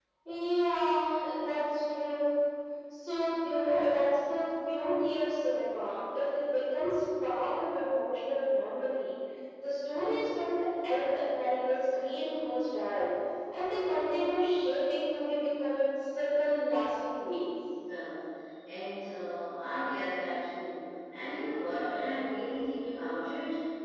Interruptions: none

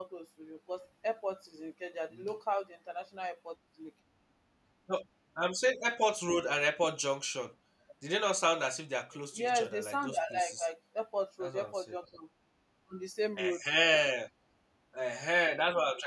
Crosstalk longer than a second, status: present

